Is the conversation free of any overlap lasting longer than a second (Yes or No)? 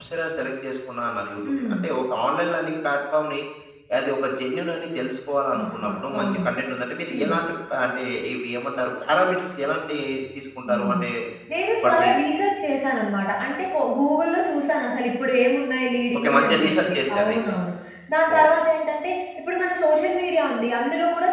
No